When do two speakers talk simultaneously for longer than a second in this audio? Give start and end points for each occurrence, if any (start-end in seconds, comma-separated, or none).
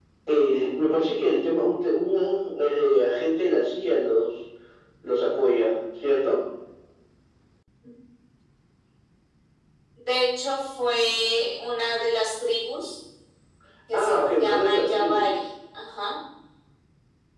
13.9-15.3